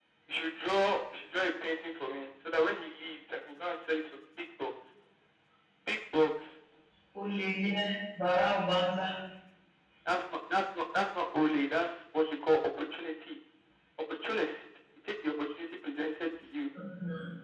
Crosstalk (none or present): none